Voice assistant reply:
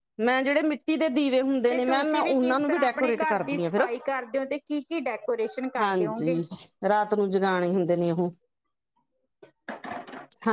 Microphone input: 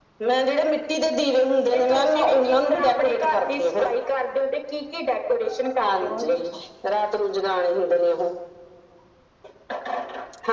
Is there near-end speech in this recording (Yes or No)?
No